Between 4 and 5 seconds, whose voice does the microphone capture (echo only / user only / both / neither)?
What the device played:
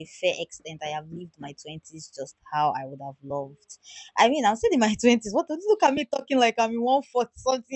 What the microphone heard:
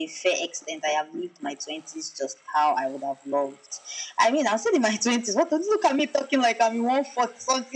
echo only